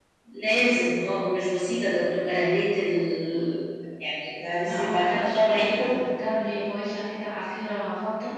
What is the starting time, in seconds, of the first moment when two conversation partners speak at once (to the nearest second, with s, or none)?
5 s